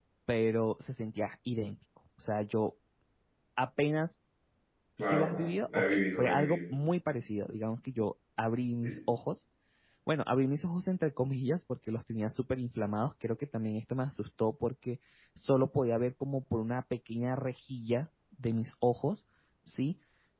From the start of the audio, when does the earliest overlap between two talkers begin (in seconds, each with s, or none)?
5.0 s